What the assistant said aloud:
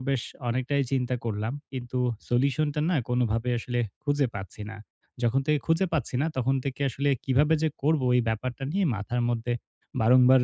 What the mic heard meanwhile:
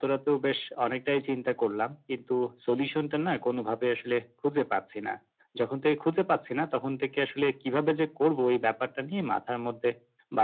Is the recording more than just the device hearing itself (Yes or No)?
No